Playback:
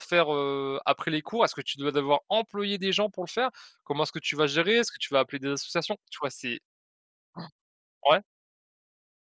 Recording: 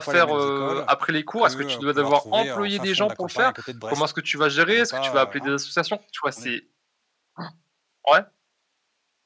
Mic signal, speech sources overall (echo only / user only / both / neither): both